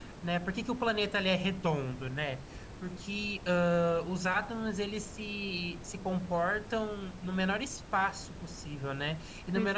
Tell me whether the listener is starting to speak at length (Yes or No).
No